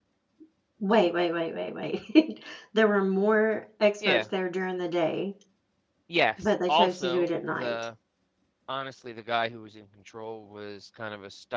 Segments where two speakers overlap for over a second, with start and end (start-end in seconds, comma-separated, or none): 6.4-7.8